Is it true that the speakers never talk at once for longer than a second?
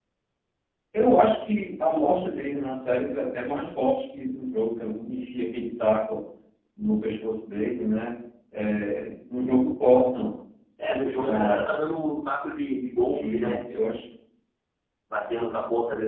Yes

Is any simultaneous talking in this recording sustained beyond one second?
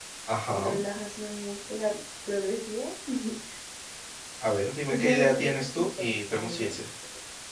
Yes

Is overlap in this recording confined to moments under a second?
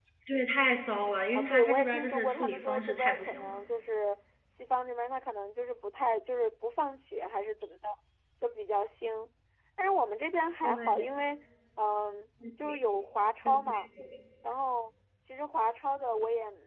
No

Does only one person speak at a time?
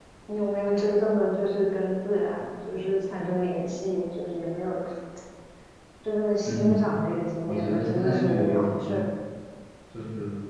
No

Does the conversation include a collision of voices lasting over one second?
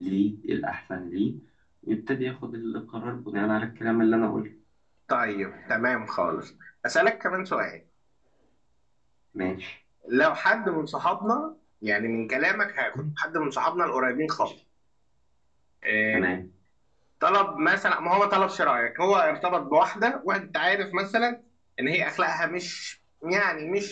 No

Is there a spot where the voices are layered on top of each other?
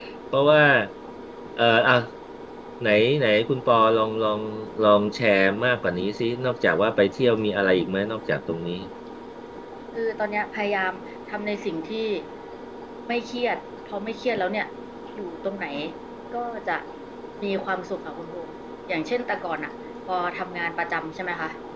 No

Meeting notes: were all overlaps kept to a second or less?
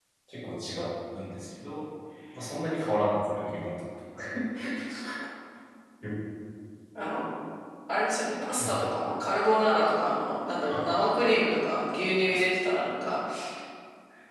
Yes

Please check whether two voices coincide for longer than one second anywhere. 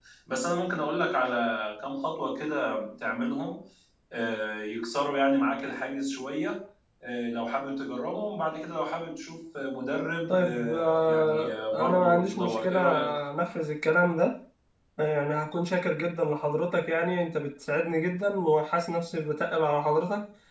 Yes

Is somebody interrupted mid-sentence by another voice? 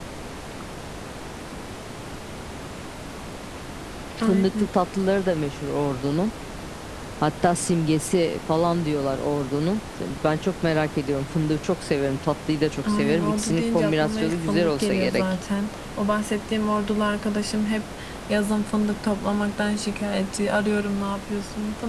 Yes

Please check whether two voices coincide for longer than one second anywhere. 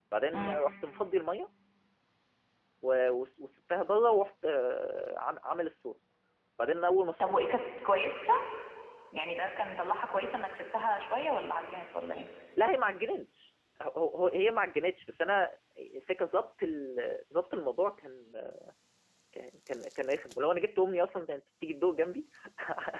No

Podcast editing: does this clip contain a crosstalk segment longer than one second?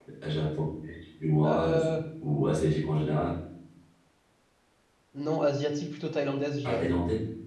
No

